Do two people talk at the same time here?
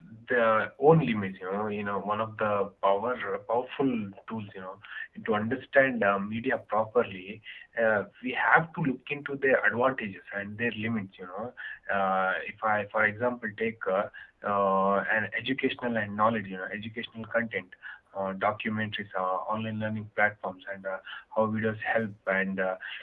No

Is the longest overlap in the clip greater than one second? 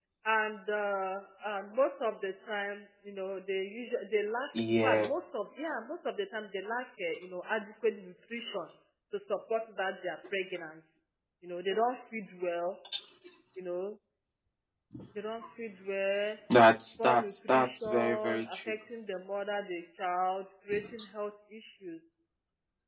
Yes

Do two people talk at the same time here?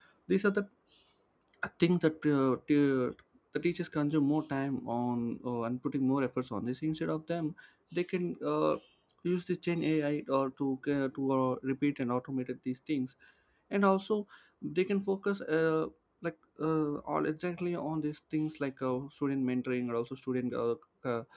No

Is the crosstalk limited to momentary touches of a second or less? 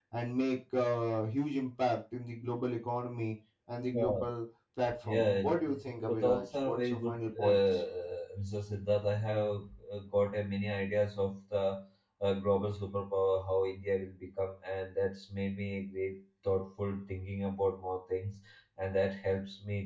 No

